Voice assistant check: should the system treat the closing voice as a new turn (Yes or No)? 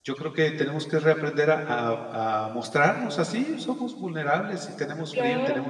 No